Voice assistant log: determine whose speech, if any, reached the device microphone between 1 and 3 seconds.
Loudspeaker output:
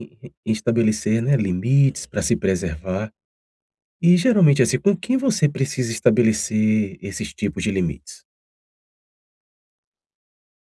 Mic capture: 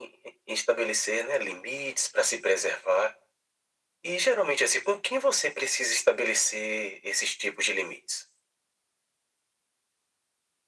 echo only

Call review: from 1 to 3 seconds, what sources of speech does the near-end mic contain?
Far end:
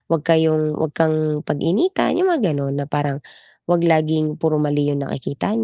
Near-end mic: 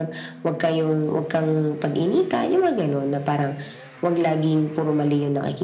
echo only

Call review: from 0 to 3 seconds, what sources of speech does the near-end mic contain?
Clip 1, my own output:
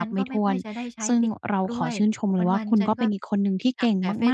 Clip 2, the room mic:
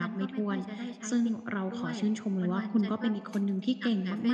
echo only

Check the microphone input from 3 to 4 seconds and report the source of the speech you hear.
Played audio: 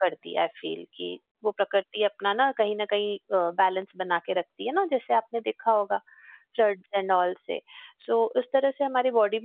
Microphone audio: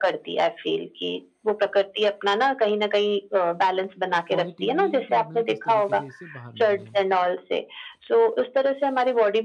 echo only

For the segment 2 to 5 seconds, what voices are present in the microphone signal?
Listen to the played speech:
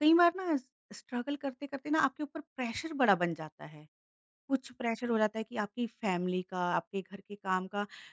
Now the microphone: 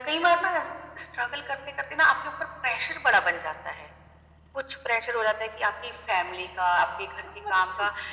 echo only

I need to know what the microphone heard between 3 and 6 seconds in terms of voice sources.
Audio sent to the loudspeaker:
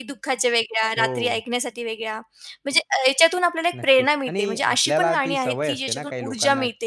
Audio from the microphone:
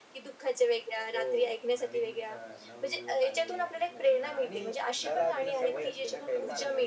both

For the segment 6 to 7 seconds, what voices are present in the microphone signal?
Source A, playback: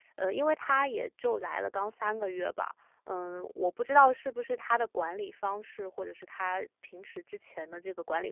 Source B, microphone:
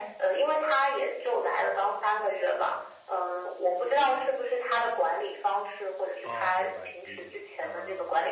both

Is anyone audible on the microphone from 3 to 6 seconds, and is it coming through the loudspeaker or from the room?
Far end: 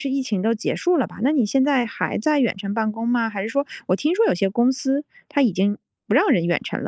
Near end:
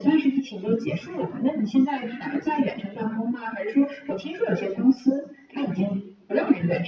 echo only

